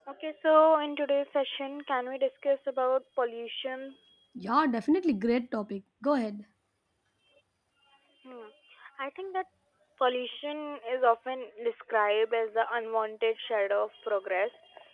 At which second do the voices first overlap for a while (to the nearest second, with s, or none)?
none